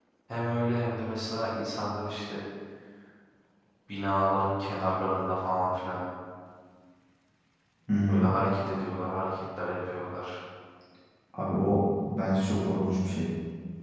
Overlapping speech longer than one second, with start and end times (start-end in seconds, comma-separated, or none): none